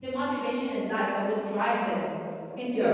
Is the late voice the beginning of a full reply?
Yes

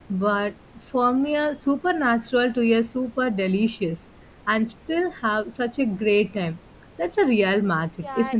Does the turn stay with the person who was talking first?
No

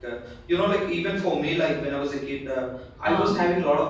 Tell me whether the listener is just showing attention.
Yes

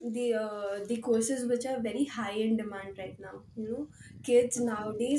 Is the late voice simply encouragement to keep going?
Yes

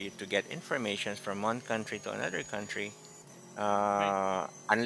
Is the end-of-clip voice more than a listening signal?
No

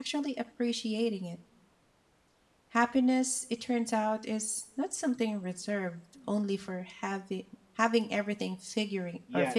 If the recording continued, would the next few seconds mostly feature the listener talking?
Yes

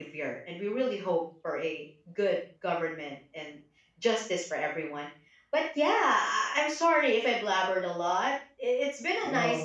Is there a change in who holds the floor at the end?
No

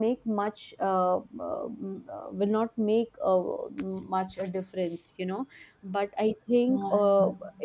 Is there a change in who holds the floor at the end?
No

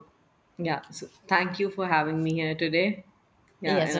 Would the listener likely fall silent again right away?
No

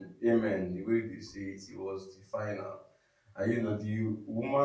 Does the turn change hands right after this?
No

